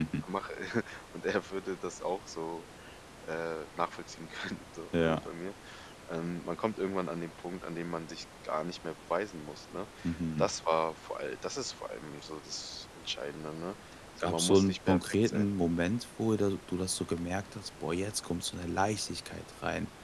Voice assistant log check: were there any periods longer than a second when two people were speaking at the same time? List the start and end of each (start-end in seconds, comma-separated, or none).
14.2-15.4